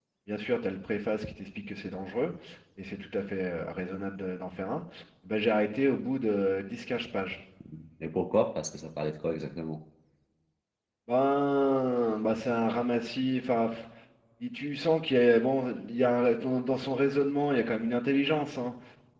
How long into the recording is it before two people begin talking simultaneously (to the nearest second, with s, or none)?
none